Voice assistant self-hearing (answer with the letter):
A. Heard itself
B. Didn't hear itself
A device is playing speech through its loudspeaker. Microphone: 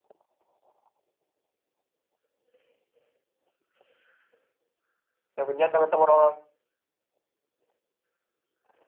B